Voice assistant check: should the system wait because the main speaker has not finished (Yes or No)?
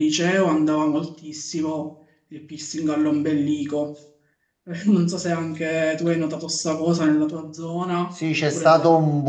No